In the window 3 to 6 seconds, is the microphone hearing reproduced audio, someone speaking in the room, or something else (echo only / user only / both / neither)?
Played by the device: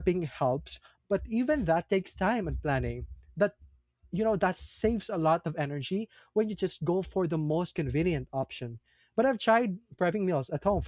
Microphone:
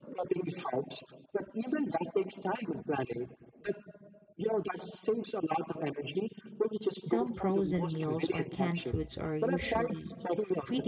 echo only